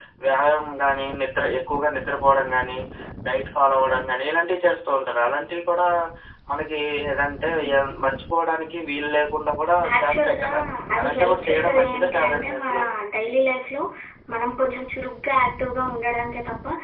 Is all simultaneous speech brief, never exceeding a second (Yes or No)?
No